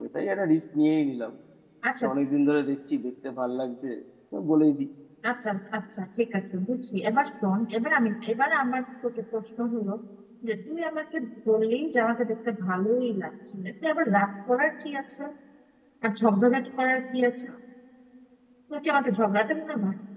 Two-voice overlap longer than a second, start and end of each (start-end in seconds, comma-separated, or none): none